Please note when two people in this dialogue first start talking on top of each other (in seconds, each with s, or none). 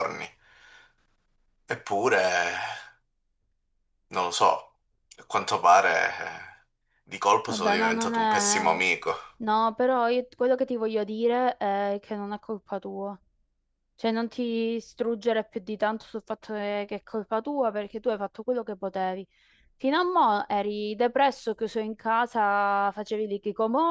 7.5 s